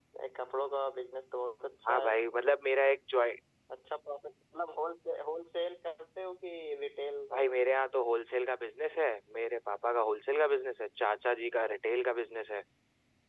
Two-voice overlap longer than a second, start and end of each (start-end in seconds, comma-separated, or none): none